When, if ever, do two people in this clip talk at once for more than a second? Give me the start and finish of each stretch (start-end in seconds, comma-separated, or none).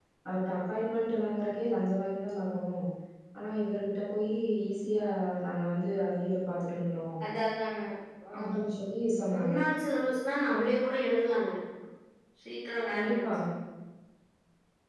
none